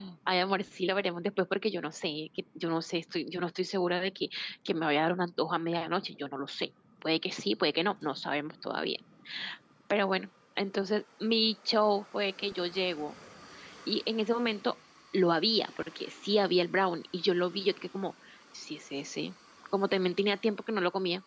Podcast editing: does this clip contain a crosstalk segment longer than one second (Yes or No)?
No